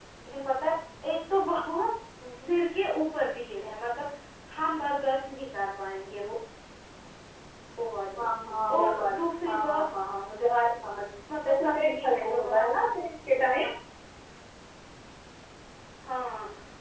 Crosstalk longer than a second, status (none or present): present